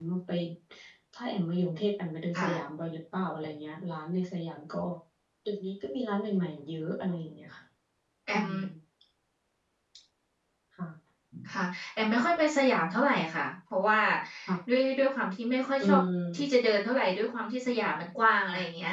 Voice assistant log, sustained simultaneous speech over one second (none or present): none